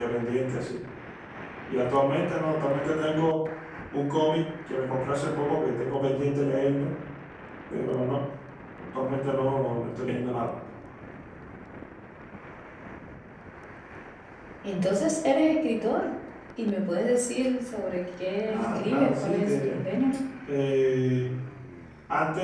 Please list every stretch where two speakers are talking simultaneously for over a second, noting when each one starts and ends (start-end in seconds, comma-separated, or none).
18.5-19.8